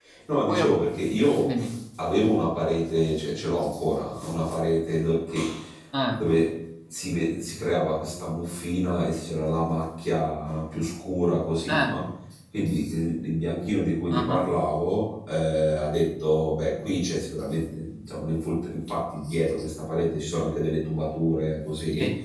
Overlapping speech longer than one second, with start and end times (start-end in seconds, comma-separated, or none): none